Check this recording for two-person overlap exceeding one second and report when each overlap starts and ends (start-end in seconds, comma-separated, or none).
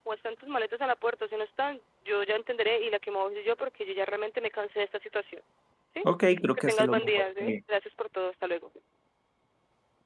6.0-7.6